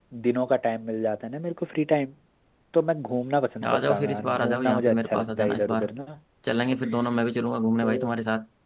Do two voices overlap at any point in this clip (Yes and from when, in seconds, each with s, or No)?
Yes, from 3.7 s